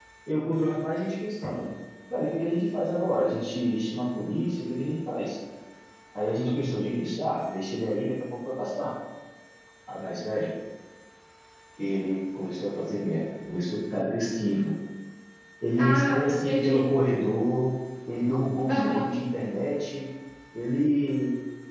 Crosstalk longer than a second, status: present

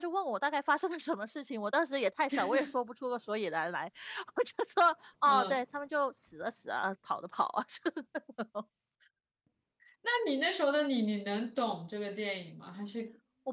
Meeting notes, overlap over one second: none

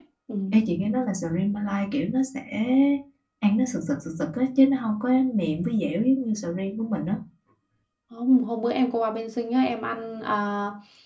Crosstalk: none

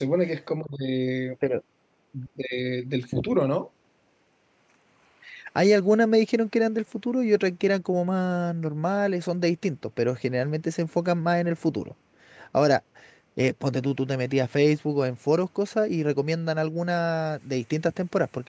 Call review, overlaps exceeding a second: none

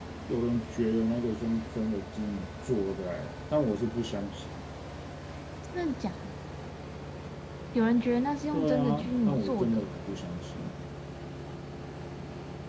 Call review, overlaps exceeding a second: present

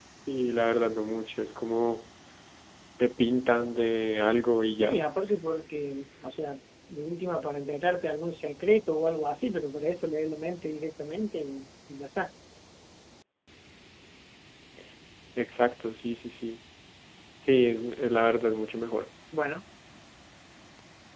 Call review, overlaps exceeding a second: none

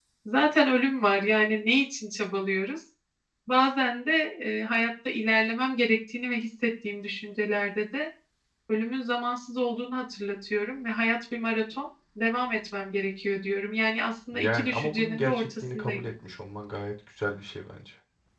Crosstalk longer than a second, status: present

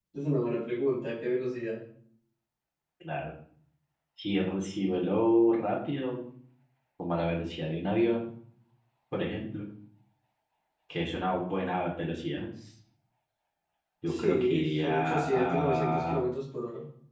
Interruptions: present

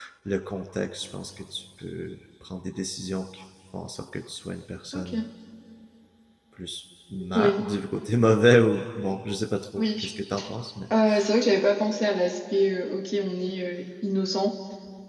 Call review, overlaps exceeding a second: none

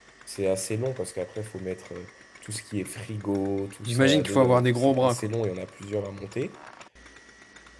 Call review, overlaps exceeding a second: present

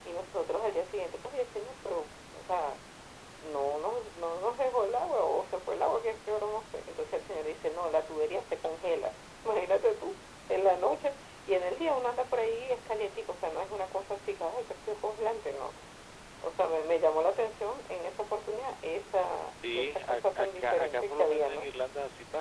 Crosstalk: present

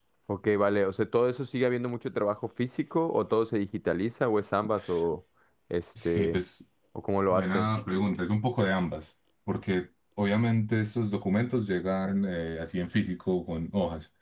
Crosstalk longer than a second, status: none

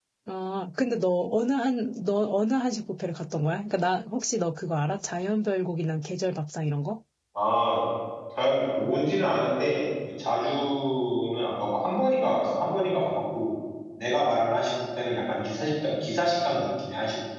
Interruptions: none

